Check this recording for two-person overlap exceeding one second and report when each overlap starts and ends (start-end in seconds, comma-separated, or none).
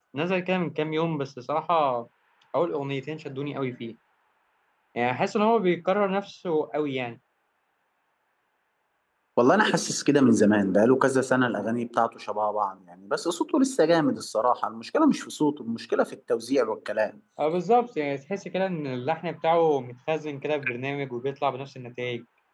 none